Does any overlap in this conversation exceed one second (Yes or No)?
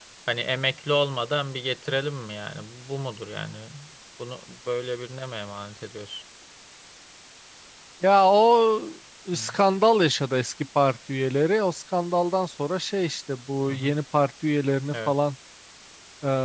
No